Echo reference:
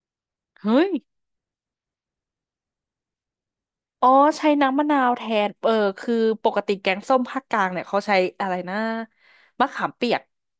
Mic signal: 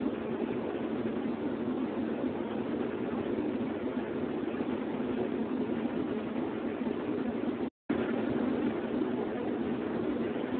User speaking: No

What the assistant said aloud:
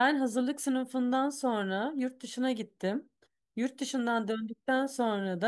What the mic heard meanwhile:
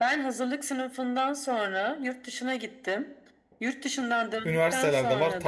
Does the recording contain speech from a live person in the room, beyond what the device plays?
Yes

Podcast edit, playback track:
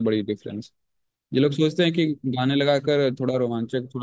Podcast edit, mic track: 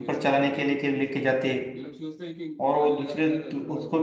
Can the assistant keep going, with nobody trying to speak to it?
No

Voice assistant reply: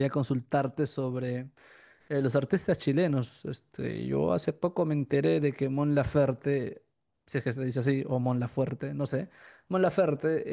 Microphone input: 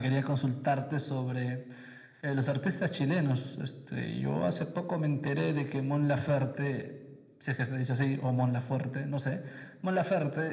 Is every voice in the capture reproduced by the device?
Yes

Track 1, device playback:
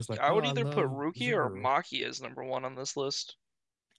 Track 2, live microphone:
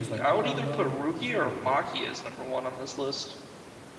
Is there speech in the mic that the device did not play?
No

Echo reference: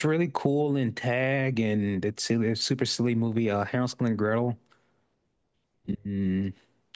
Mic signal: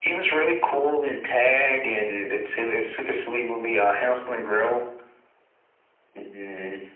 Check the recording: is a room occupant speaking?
No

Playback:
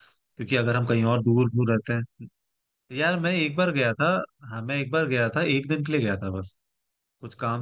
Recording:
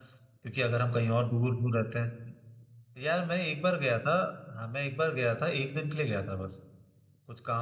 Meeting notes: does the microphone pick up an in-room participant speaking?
No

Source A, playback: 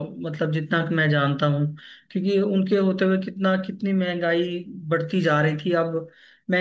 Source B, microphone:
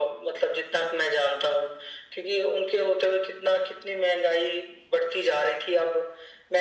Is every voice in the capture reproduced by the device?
Yes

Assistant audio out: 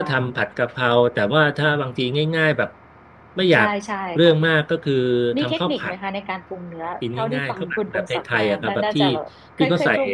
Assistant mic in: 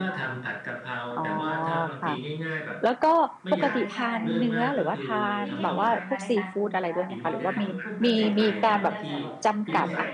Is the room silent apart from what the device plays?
No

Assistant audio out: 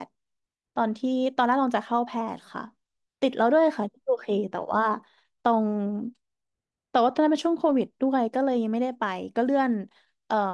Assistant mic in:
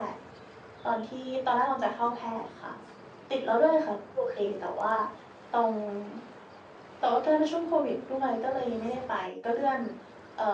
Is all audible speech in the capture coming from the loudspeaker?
Yes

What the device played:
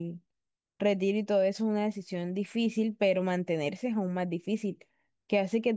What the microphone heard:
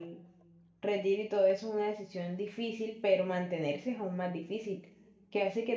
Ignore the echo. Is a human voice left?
No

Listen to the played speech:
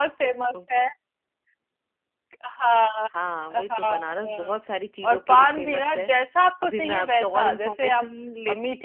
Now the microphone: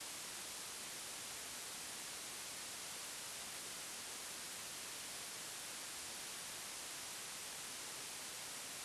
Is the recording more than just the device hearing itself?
No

